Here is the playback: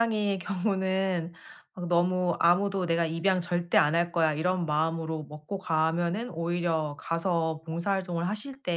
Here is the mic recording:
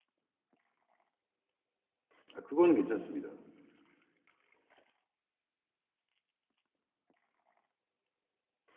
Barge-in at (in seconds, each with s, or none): 2.3 s